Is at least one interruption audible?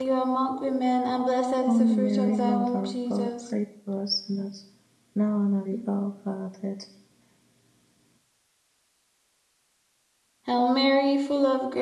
Yes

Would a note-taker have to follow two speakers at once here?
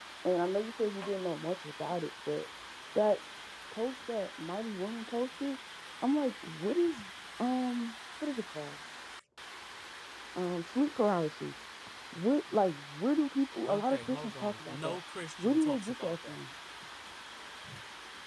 Yes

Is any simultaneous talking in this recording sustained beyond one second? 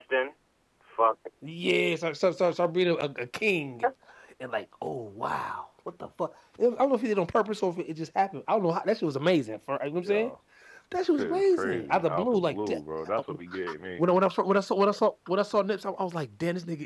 Yes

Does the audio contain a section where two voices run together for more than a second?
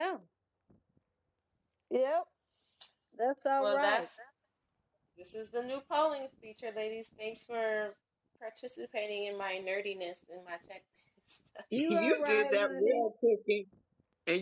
Yes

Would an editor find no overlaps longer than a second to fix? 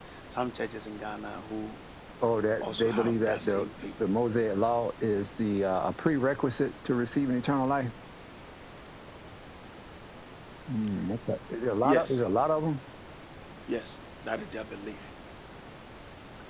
No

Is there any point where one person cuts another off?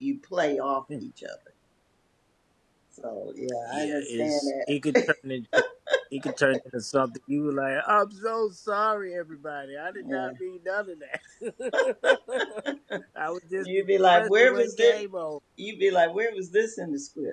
Yes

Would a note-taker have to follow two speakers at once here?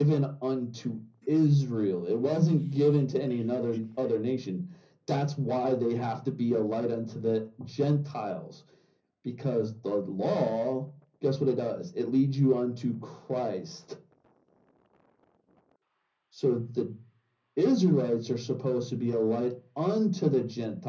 No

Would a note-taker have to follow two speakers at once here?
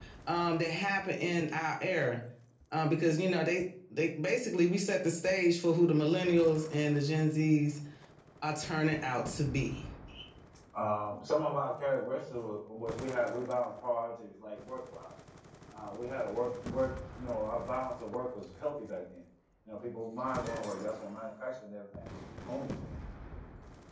No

